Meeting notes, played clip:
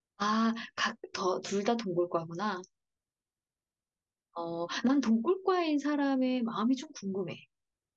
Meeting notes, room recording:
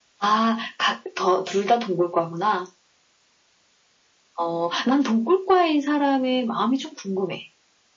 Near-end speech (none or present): none